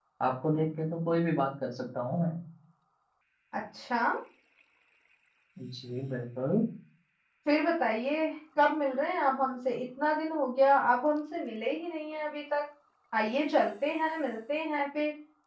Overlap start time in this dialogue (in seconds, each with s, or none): none